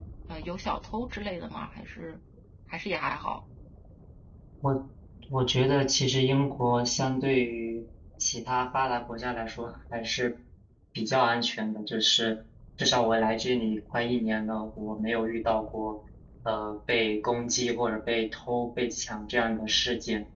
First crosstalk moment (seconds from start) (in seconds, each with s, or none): none